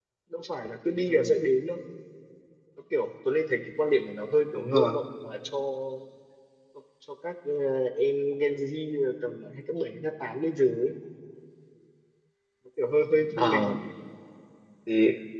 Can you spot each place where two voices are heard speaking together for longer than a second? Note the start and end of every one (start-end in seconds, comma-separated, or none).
none